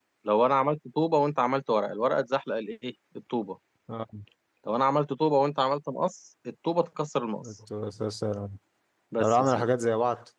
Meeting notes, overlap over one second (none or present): none